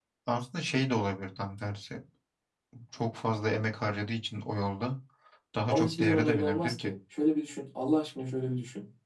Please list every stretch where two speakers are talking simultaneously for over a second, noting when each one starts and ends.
5.7-6.9

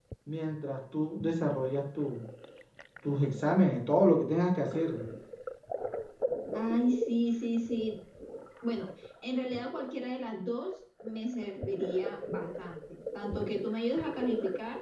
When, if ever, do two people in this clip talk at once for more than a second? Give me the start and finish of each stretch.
none

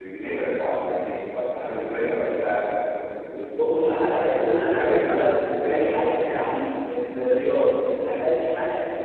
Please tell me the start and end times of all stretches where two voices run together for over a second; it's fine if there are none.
3.6-6.4

